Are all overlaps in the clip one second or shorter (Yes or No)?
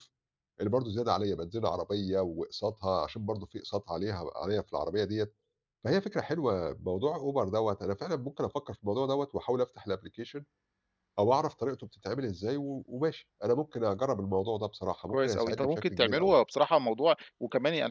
No